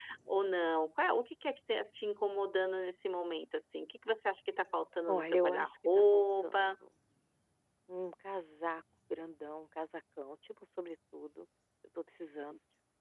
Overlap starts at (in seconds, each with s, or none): 5.1 s